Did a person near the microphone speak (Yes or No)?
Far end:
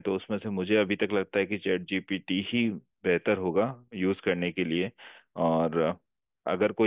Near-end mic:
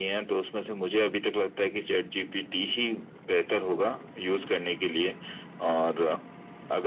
No